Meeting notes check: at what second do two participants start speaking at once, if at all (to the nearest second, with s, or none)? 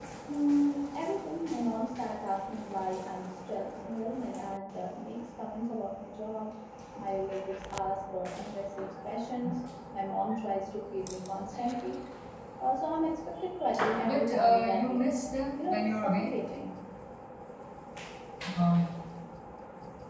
14 s